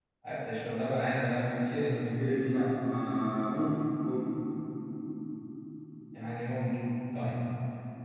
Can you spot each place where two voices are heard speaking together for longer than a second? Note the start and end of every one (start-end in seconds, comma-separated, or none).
none